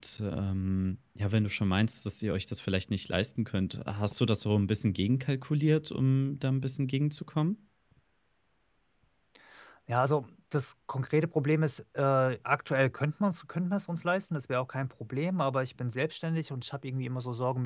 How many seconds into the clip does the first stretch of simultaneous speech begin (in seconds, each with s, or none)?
none